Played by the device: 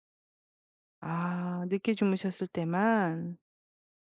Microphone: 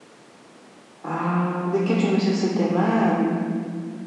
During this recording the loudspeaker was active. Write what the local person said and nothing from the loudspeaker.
none

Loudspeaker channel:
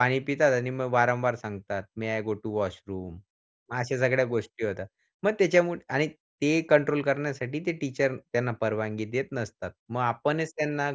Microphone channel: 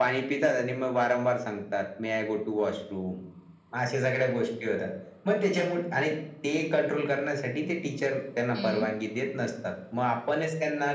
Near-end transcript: हं.

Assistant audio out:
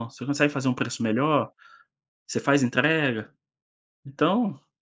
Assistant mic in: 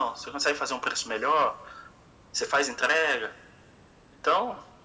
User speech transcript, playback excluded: none

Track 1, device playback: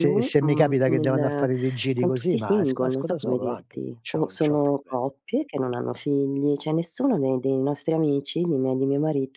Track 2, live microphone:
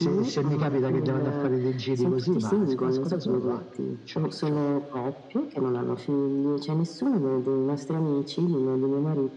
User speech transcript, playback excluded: none

